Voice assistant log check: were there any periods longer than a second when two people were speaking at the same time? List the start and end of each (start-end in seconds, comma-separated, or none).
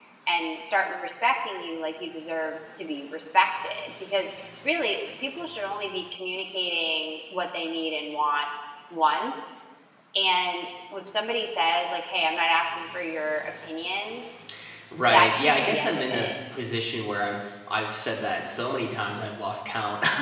15.1-16.3